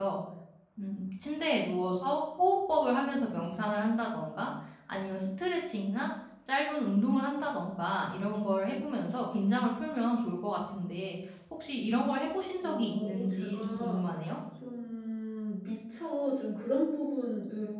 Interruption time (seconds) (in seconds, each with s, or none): 12.6 s